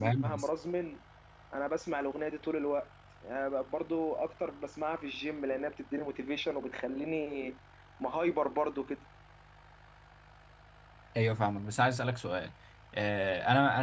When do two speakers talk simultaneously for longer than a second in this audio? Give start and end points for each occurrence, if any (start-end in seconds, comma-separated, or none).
none